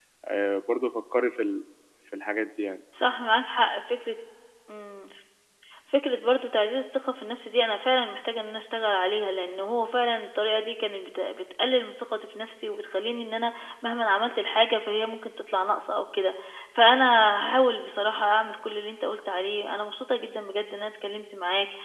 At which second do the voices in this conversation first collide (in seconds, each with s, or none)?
none